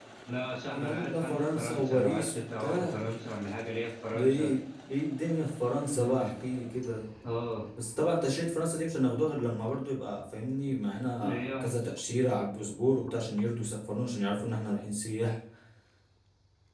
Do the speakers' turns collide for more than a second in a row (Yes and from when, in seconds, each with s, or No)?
Yes, from 0.7 s